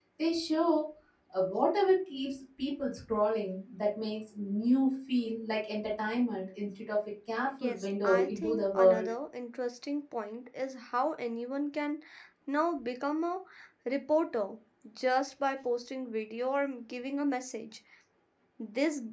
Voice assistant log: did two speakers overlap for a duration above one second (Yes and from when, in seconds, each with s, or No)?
Yes, from 7.6 s